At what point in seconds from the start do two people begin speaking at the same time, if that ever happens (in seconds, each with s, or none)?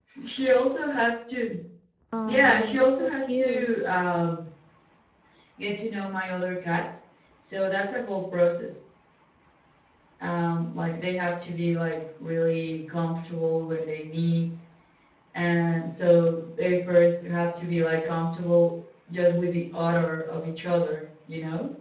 2.2 s